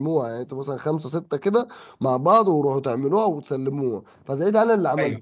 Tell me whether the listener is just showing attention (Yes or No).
Yes